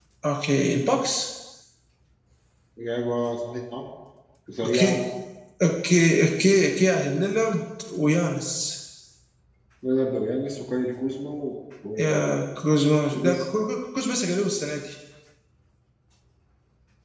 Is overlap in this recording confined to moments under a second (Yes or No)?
Yes